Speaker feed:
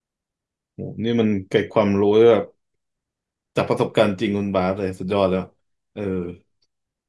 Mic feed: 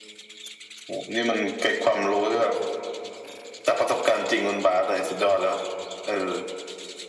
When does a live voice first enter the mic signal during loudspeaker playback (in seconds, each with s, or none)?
none